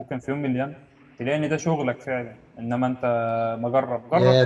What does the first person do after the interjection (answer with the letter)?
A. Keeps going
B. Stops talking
B